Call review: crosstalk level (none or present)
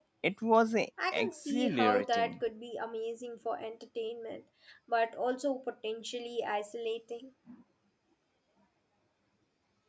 present